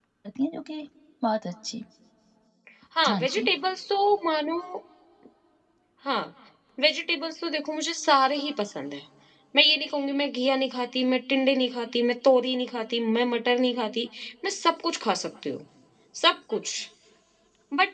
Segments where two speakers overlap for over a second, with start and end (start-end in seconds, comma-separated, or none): none